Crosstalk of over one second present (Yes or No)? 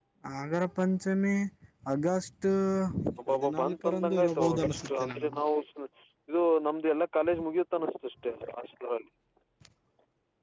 Yes